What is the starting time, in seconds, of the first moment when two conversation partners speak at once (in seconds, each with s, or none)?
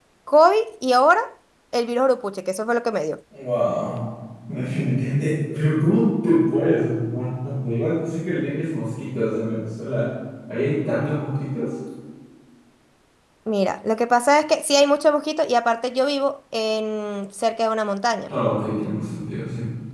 none